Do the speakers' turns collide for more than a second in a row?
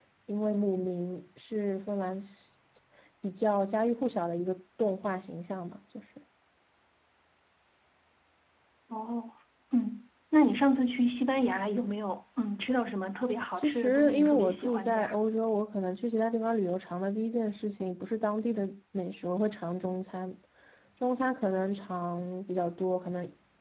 Yes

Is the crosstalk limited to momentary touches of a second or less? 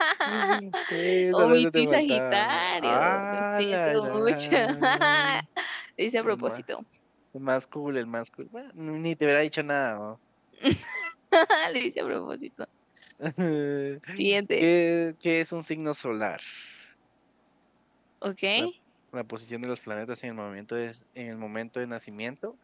No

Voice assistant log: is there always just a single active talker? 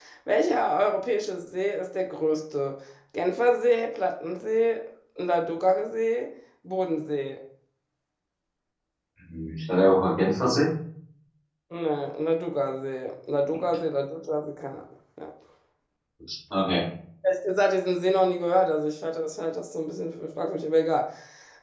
Yes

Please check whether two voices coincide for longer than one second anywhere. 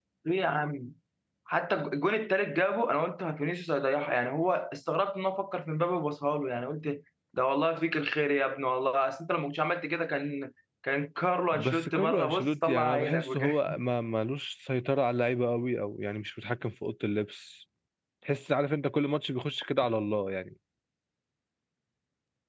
Yes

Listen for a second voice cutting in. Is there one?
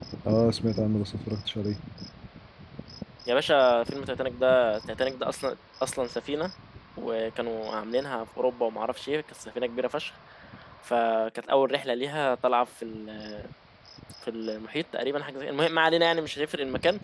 No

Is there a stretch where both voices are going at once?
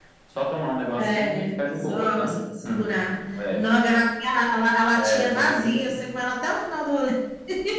Yes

